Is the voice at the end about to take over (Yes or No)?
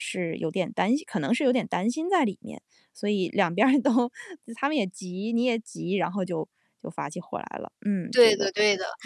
Yes